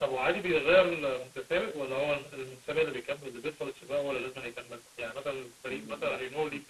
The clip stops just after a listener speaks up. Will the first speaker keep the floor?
Yes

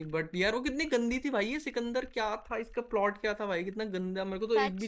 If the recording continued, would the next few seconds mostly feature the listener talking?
Yes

